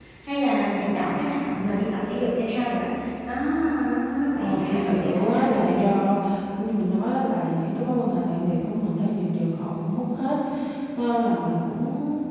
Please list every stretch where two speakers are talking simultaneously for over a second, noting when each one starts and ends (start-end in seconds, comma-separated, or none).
4.4-5.9